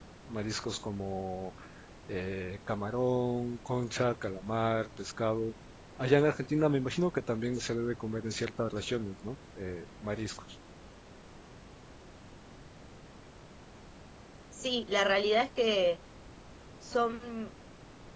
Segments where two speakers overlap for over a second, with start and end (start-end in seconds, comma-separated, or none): none